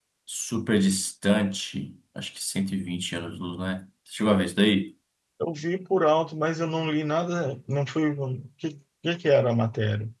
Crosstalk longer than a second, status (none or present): none